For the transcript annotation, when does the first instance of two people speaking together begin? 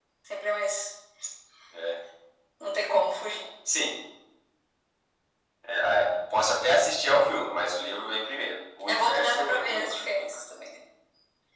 8.9 s

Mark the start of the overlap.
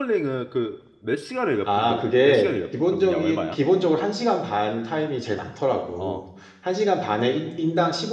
1.8 s

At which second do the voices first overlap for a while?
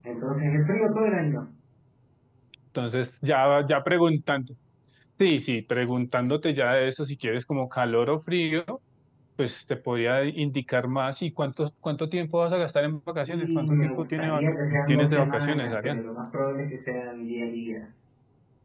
13.3 s

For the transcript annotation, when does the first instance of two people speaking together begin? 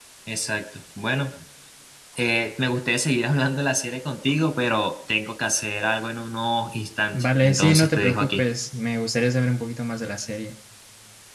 7.1 s

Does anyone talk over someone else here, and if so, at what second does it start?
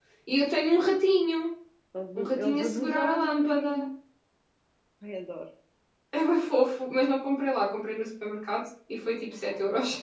2.2 s

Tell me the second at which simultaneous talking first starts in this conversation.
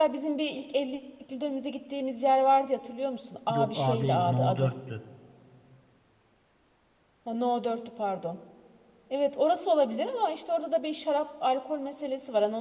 3.5 s

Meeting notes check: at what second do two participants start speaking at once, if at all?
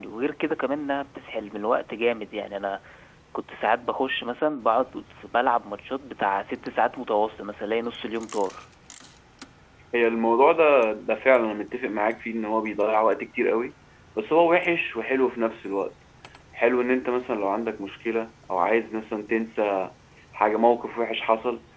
none

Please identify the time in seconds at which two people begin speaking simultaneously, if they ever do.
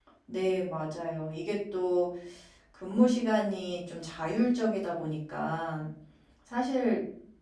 none

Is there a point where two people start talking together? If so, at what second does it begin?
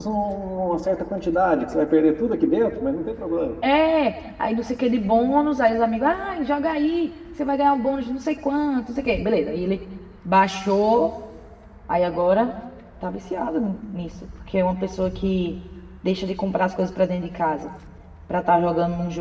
none

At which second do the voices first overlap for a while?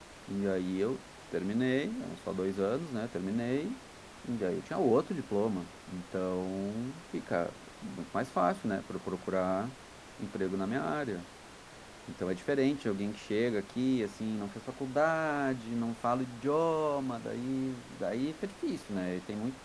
none

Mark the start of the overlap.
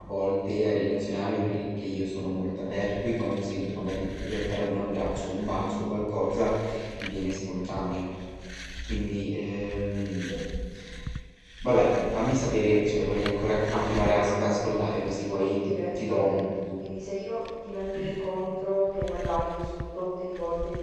13.6 s

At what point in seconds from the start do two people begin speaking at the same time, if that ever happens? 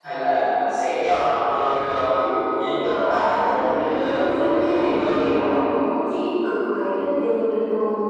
2.8 s

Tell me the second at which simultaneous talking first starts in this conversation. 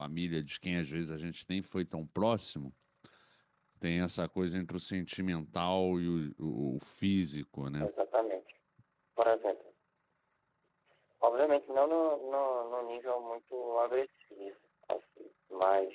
none

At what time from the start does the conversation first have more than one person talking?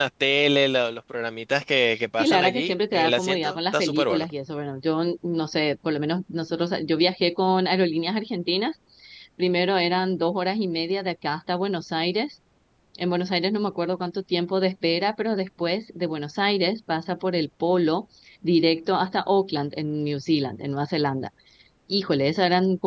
2.2 s

